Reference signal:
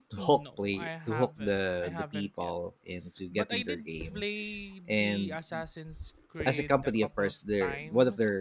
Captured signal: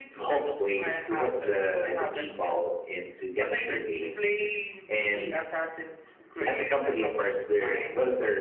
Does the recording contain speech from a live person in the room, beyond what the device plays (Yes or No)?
No